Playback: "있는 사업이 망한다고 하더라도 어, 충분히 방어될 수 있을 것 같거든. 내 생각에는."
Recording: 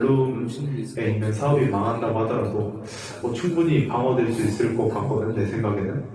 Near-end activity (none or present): present